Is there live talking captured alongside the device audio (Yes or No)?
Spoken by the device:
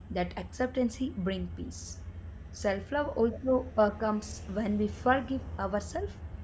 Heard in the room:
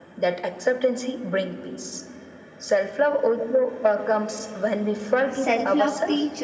Yes